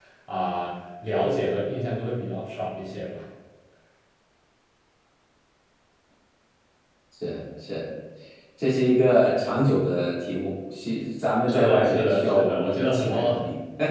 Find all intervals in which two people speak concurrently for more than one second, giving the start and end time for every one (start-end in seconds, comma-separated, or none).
11.5-13.3